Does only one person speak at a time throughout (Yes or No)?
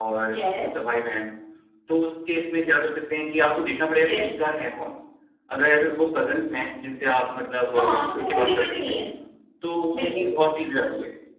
No